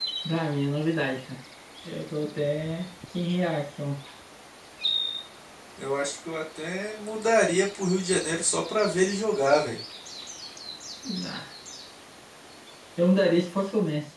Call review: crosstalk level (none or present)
none